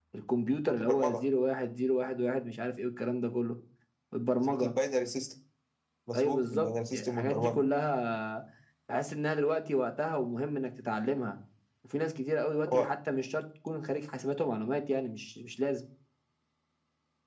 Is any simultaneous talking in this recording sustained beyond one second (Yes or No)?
Yes